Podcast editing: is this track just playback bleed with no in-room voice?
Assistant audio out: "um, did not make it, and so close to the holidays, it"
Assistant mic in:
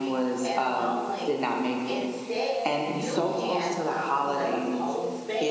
No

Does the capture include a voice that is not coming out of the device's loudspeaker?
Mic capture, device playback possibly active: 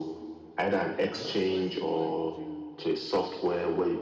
Yes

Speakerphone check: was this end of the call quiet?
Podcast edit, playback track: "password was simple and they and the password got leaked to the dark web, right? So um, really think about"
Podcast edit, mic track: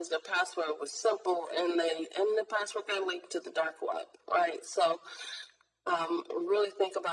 Yes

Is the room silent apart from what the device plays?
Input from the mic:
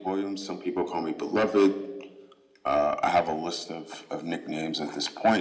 Yes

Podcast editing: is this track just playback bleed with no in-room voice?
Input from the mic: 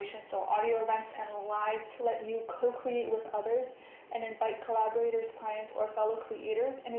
Yes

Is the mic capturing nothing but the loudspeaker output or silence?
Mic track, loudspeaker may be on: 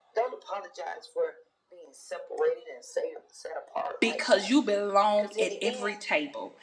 No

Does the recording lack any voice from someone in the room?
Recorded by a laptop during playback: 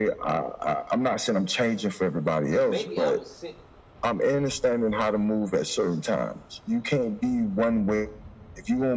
No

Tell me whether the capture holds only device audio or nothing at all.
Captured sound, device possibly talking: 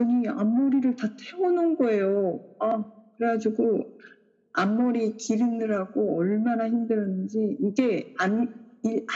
Yes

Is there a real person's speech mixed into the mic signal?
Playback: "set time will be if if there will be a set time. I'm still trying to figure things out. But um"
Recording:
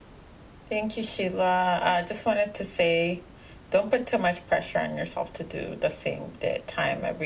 Yes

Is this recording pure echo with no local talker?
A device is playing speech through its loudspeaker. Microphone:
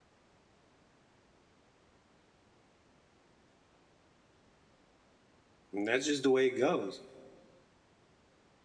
No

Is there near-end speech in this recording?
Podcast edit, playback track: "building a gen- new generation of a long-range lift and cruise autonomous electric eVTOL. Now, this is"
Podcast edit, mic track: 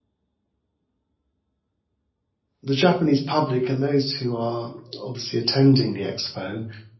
Yes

